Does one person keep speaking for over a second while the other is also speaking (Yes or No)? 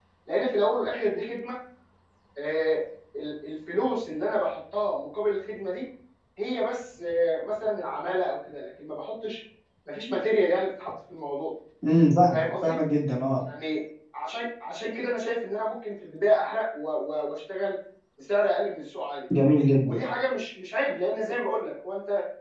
No